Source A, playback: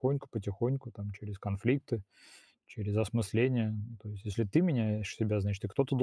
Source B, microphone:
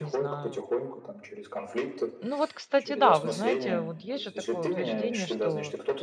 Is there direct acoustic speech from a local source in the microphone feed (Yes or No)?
Yes